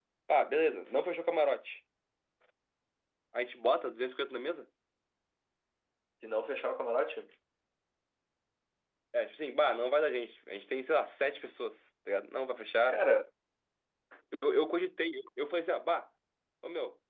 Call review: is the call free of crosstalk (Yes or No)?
Yes